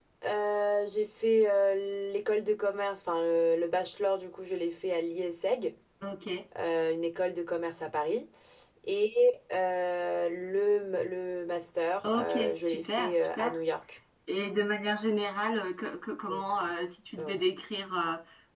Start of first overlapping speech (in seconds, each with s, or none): 12.0 s